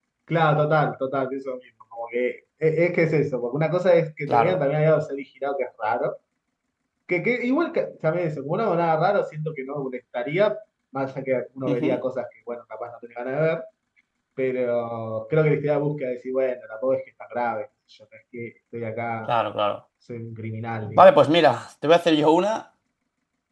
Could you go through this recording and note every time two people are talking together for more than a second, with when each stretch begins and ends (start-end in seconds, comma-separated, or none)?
none